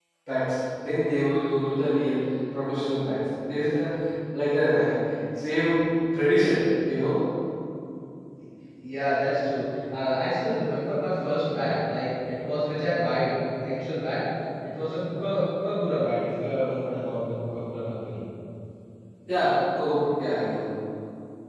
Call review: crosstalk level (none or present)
none